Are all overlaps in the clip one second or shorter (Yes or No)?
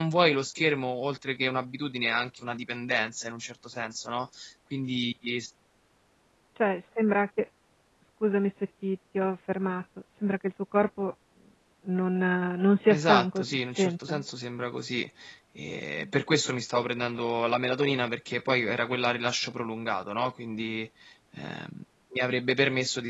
No